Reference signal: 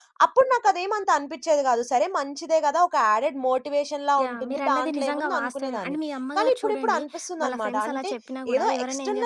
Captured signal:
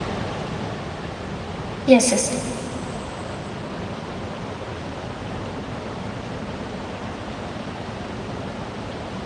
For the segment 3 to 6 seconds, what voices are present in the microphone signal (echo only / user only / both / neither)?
neither